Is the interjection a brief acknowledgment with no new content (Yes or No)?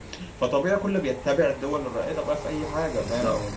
Yes